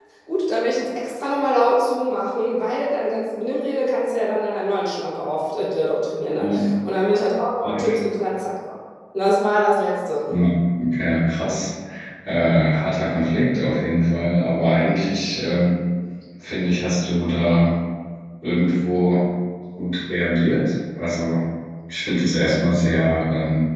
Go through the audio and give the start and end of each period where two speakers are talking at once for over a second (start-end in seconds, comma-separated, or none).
none